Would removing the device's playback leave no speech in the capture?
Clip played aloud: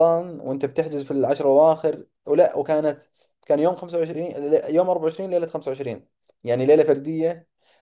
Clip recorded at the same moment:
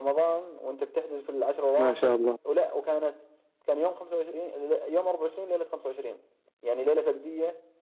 No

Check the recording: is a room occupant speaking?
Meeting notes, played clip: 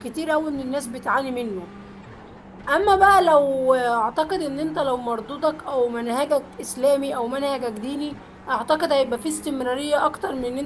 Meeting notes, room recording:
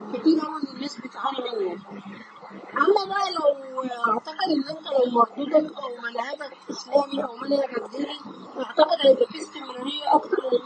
No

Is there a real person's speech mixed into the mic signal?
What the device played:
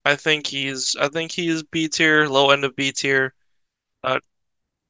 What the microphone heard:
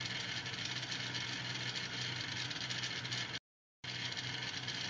No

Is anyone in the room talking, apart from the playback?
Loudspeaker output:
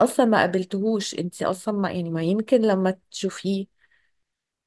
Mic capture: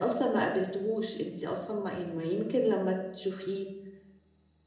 No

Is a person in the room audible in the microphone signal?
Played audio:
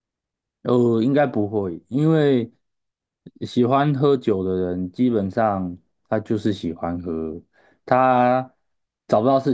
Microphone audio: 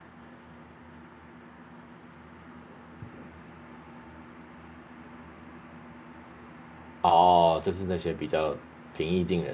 Yes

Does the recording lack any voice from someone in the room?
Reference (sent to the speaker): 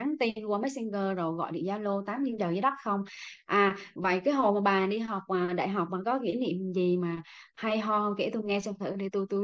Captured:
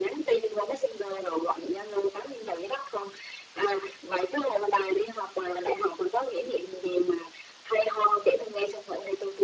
Yes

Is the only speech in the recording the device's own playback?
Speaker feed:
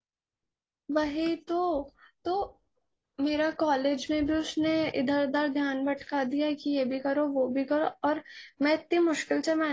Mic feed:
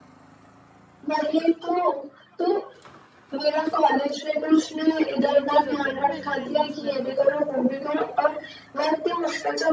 No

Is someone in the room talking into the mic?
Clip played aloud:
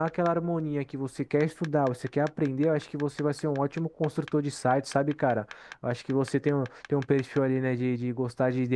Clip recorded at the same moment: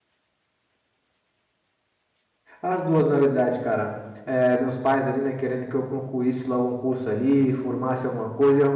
Yes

